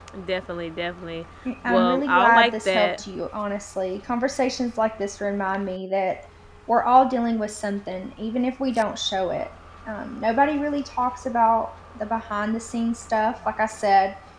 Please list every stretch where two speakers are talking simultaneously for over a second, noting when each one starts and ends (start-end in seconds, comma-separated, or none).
1.7-3.0